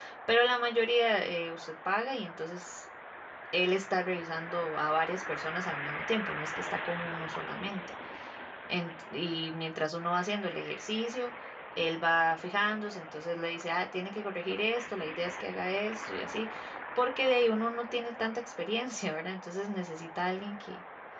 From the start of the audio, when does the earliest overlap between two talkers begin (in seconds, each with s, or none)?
none